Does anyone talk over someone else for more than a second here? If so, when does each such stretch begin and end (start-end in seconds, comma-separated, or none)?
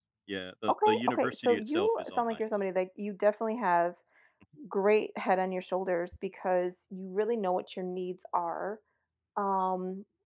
0.7-2.4